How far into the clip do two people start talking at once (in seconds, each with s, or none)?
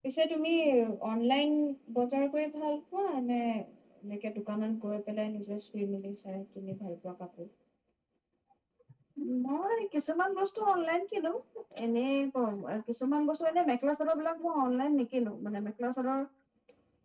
none